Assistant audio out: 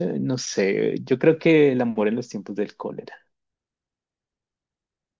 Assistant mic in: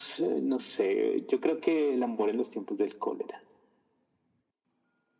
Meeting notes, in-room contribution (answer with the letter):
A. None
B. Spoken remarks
A